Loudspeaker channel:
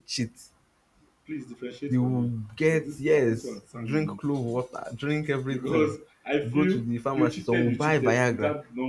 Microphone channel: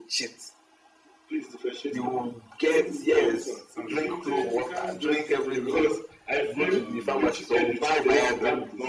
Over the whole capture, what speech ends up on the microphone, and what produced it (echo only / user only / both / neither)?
both